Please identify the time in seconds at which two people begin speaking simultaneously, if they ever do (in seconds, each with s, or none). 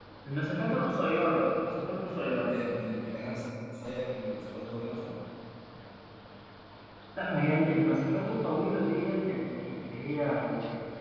none